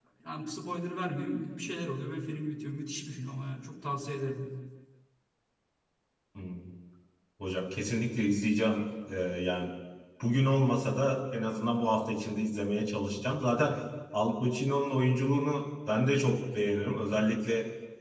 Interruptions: none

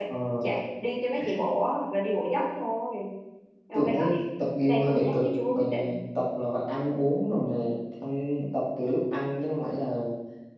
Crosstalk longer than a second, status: present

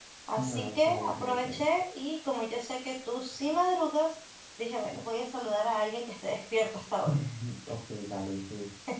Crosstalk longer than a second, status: present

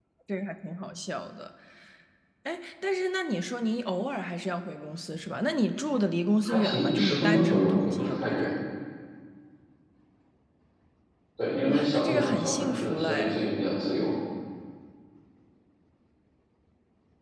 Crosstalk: present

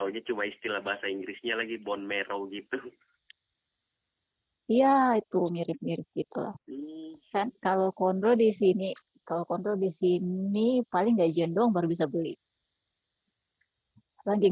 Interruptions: none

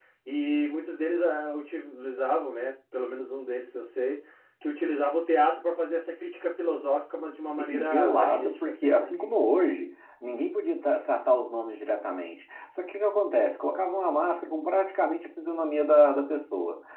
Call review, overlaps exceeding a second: present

